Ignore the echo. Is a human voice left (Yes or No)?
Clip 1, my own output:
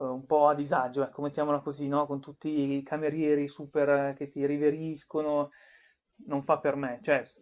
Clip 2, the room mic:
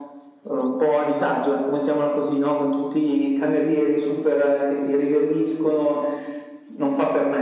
No